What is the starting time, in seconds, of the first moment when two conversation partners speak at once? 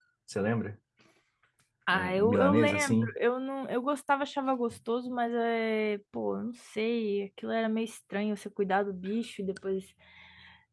2 s

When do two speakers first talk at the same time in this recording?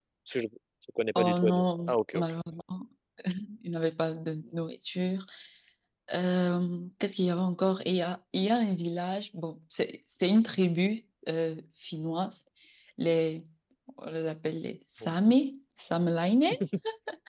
1 s

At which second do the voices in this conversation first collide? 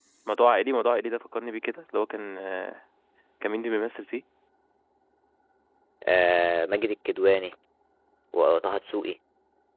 none

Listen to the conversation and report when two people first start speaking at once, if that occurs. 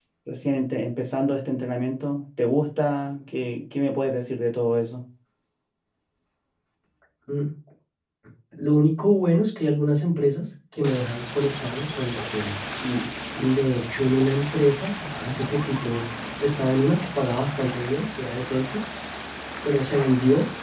none

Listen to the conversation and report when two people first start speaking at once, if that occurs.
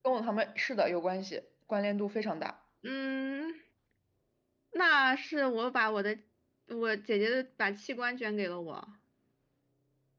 none

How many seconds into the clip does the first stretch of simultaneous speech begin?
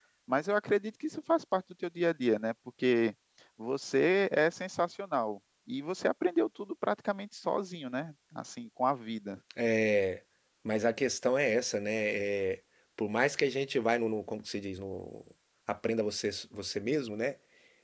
none

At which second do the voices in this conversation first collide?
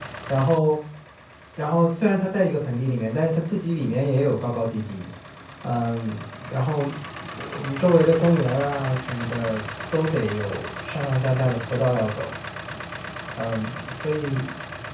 none

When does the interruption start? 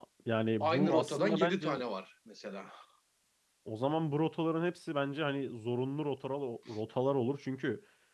1 s

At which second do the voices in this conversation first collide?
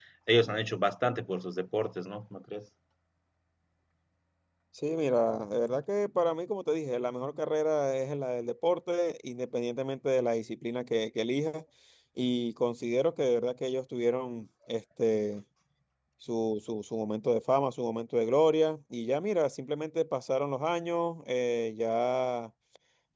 none

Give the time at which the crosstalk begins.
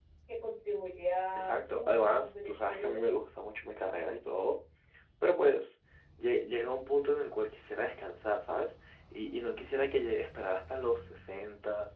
1 s

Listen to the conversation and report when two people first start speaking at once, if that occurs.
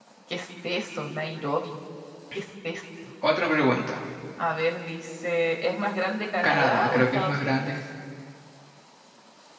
6 s

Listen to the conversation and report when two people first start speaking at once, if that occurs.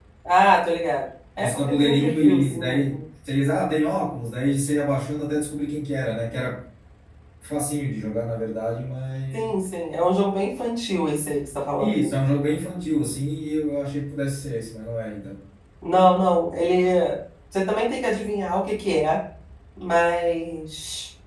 1 s

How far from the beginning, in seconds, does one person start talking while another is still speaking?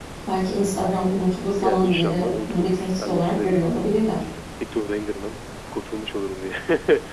2 s

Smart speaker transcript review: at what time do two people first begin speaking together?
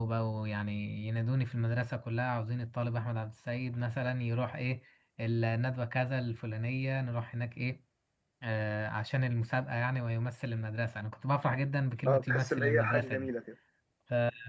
12 s

